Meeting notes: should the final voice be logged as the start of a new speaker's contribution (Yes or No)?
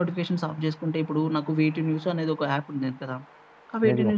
No